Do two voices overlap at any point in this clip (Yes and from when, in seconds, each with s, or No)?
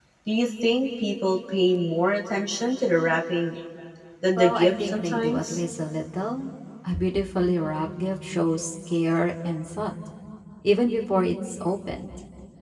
Yes, from 4.4 s